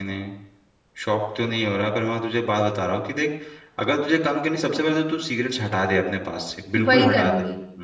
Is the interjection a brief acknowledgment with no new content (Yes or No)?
No